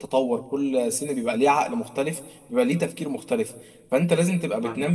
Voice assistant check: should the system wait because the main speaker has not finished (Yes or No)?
Yes